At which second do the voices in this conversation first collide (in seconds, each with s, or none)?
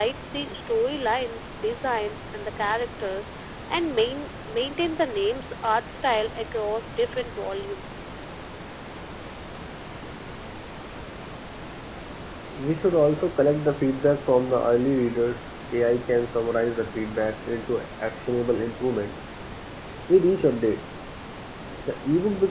none